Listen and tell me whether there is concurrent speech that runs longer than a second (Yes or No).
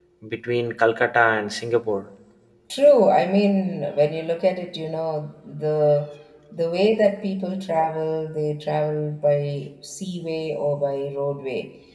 No